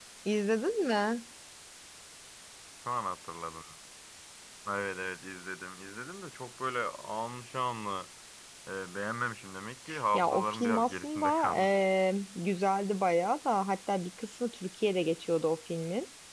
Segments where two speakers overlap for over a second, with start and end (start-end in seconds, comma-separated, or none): 10.1-11.9